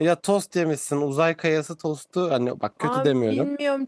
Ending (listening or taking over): taking over